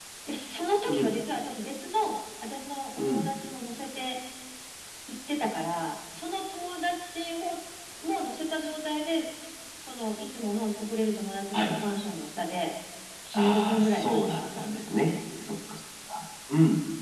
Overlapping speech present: Yes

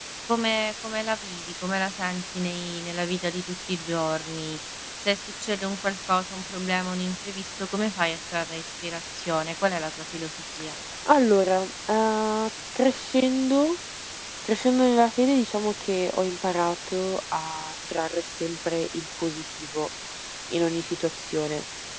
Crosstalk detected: No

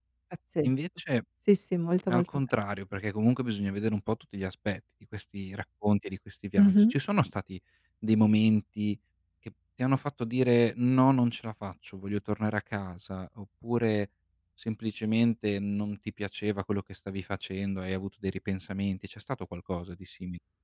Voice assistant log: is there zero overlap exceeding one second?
Yes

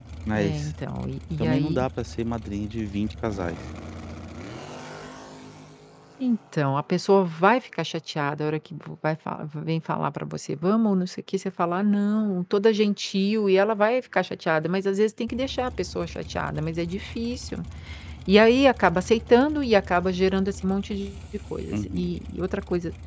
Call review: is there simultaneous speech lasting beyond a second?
No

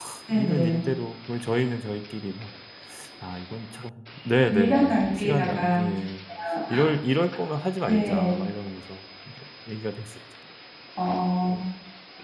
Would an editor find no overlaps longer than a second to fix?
No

